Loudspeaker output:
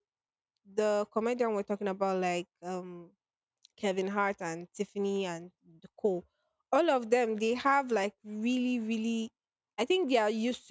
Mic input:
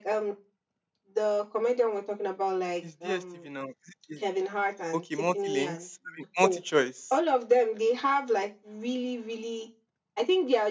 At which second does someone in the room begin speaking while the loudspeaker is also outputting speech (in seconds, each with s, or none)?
2.8 s